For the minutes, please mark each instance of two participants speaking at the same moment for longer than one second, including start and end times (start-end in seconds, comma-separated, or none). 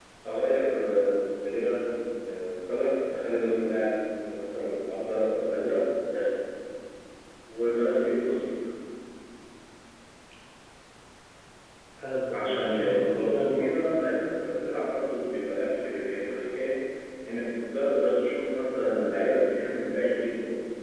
12.3-13.7